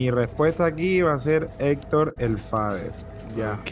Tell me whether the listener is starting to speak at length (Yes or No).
Yes